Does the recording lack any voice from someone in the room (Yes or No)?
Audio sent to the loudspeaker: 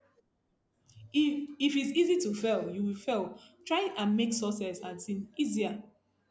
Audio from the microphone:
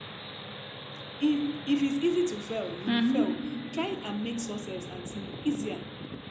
No